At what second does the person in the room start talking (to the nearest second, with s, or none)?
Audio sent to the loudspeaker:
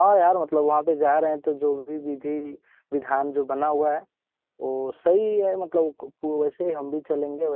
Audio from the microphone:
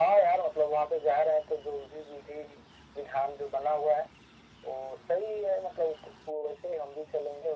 none